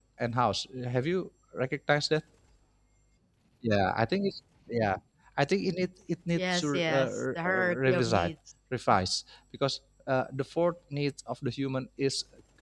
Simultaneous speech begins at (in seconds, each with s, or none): 6.4 s